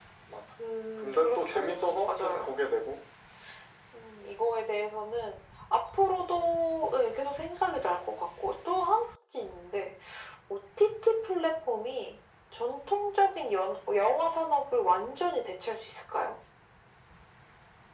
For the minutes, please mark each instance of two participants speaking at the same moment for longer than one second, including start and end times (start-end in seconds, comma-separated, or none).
1.0-2.5